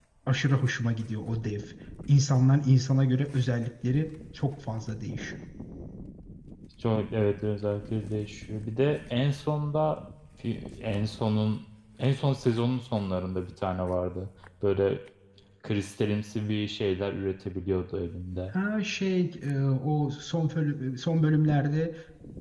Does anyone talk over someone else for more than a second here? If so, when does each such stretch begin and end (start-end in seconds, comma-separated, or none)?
none